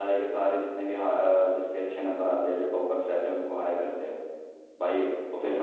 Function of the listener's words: listening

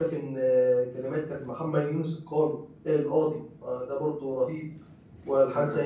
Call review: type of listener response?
listening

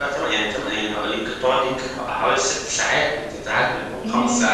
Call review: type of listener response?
taking over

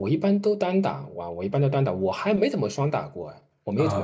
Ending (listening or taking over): taking over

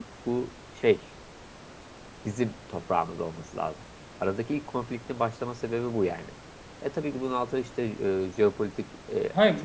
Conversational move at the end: taking over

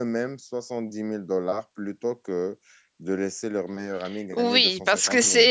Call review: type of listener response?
taking over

